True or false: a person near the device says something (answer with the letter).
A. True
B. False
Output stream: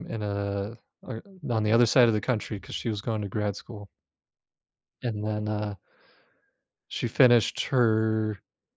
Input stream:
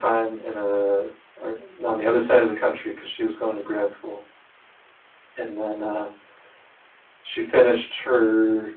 B